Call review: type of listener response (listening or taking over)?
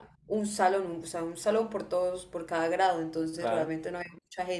listening